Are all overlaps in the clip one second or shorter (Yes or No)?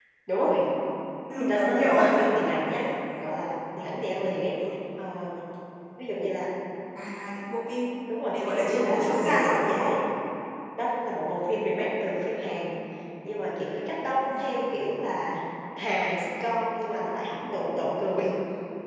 No